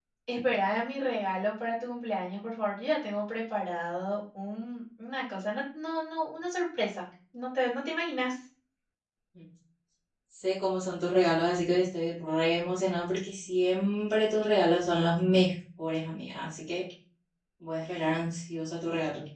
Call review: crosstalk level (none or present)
none